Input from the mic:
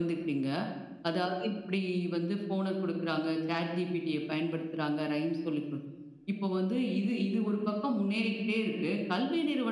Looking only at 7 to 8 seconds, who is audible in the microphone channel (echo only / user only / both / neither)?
echo only